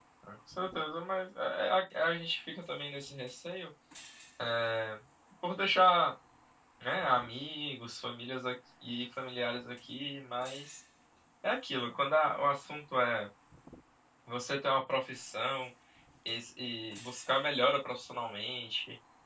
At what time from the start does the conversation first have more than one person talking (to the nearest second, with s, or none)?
none